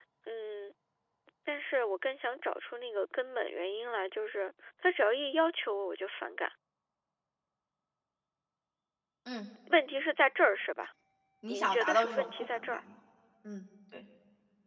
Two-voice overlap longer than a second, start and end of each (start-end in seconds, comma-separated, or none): 11.5-12.8